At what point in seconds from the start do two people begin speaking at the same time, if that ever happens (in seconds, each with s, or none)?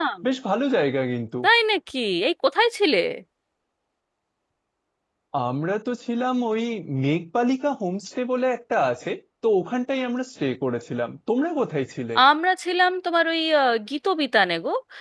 none